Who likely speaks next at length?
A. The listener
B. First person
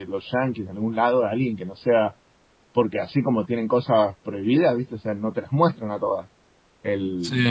B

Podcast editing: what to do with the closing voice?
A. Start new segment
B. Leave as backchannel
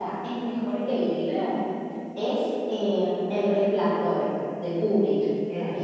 A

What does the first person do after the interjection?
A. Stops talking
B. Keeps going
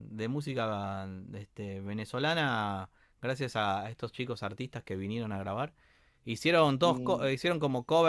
B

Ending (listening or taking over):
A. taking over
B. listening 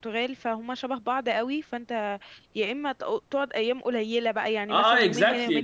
A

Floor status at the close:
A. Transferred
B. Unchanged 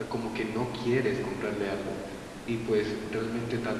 B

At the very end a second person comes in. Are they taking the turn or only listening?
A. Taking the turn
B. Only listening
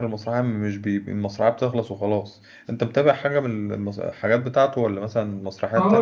A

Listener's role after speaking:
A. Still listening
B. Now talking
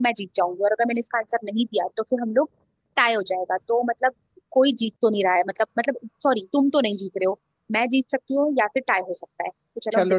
B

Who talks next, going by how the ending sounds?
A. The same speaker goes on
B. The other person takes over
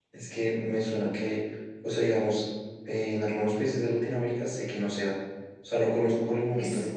A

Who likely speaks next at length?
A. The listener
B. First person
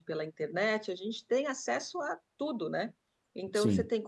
B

